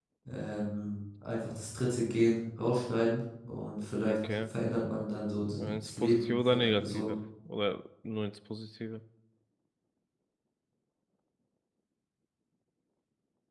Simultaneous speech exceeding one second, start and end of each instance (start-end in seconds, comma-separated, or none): 5.6-7.1